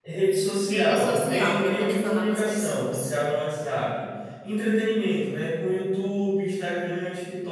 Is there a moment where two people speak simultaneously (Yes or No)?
Yes